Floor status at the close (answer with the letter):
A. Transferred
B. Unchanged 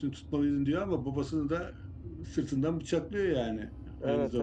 A